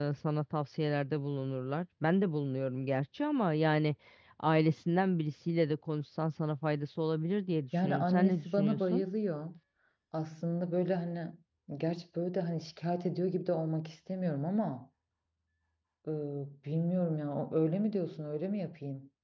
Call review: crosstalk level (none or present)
present